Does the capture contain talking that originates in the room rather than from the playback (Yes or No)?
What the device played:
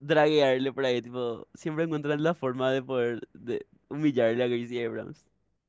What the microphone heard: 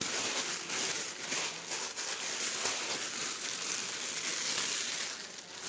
No